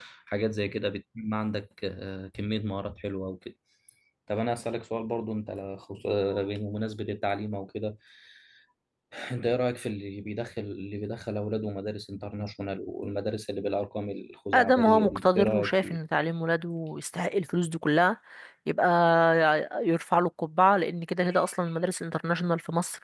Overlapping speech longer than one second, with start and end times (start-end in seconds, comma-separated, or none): 14.5-16.0